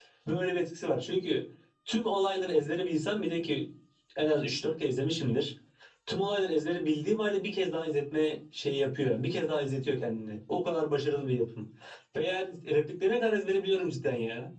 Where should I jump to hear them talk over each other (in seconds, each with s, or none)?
none